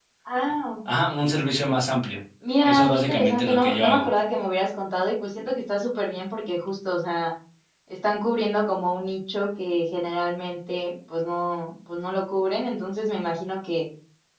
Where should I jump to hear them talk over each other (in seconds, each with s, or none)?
2.6 s